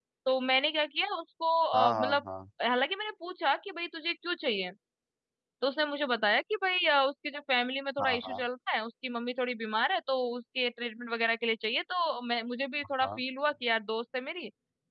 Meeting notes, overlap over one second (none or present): none